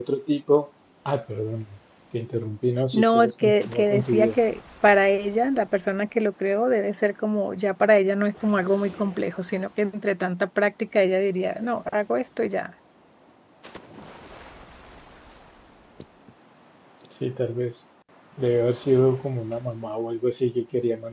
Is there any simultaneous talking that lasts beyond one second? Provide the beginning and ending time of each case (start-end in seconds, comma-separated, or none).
2.9-4.4